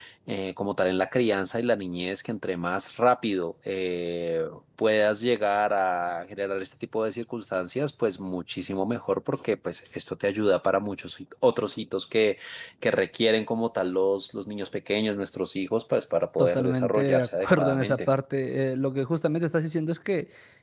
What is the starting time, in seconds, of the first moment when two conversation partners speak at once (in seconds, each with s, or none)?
16.4 s